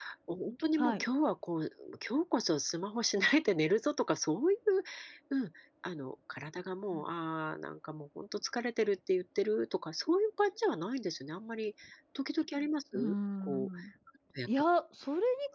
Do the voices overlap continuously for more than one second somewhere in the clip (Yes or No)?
No